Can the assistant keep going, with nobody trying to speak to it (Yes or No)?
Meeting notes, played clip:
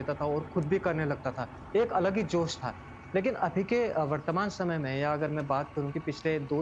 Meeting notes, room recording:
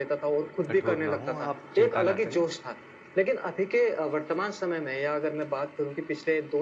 No